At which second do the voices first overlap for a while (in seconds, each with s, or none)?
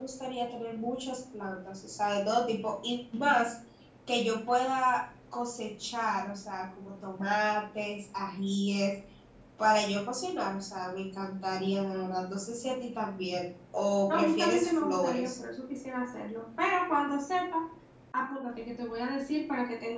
14.1 s